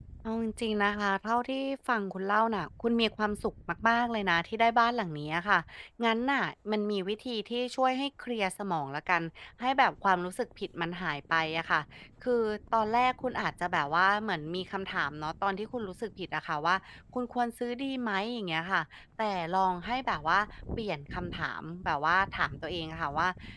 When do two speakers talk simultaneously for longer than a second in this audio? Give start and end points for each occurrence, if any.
none

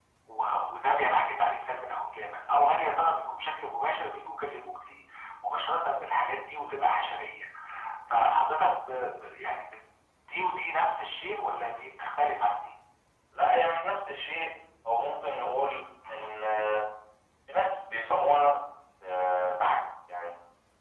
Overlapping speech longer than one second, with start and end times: none

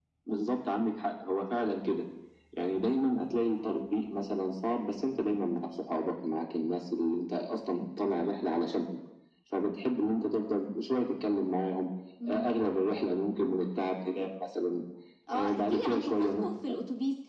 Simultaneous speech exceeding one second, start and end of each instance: 15.3-16.8

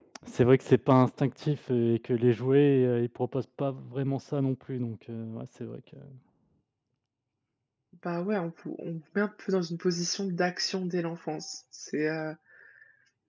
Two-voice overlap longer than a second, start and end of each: none

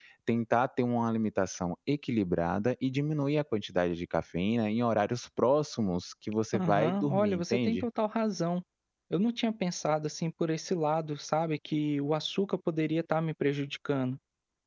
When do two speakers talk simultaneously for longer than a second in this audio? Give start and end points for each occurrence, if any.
6.5-7.8

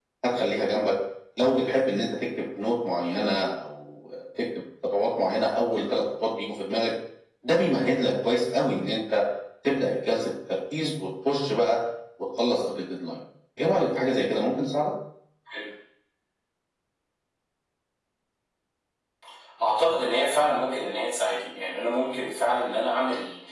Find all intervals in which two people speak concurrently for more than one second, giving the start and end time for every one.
none

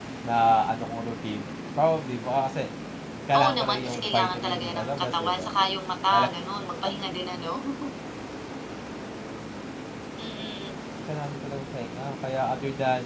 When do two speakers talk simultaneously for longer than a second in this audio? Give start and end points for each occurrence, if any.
3.4-5.5

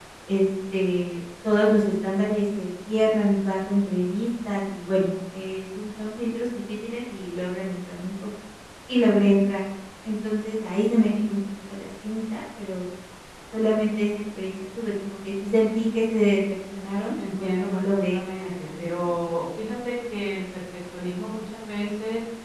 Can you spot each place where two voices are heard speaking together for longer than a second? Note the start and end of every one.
17.4-19.4

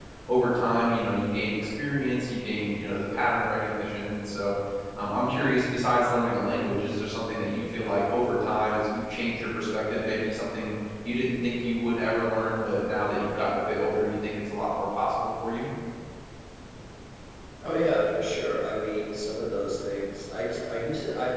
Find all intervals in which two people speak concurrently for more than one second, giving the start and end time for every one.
none

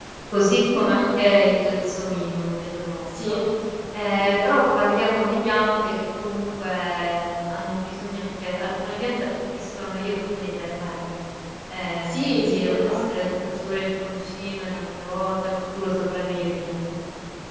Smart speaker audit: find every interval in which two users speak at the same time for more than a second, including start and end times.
12.0-13.3

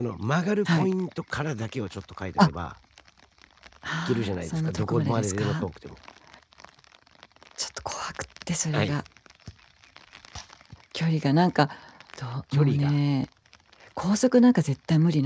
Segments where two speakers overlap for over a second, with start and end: 4.0-5.7

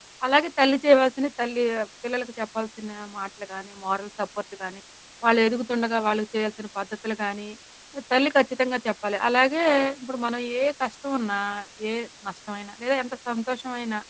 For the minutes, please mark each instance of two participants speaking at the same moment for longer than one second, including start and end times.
none

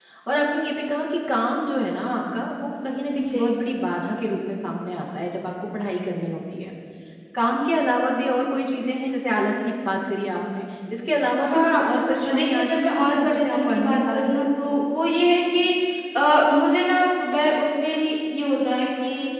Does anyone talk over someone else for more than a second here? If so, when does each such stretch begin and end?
12.2-14.4

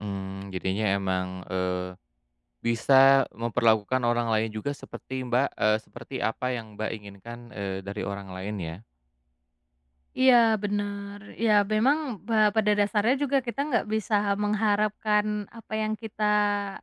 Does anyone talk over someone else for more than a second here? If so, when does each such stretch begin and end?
none

